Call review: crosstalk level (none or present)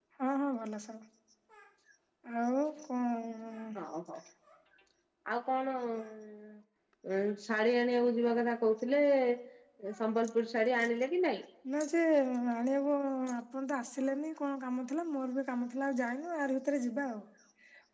none